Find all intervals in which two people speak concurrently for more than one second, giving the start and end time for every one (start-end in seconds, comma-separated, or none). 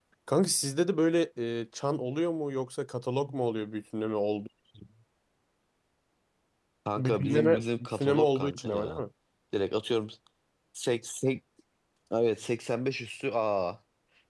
7.0-9.0